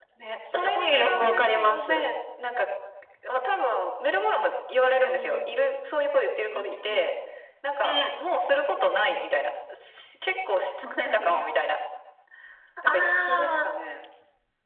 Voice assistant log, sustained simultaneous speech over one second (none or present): present